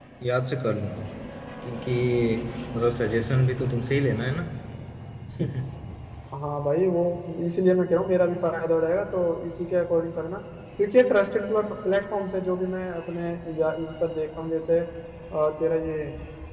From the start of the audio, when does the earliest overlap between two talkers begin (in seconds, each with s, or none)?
none